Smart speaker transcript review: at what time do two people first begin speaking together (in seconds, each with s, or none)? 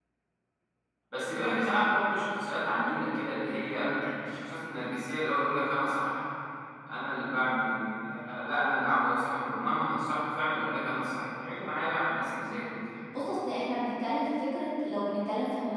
none